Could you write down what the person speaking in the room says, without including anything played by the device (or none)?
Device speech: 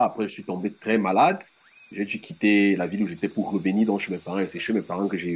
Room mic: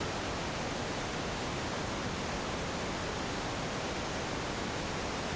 none